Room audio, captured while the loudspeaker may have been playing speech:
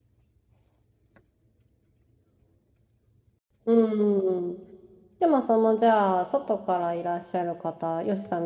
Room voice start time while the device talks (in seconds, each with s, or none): 3.6 s